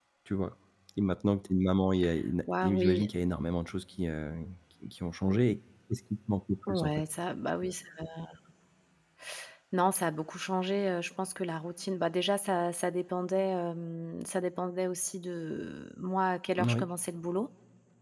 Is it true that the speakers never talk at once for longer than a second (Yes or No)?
Yes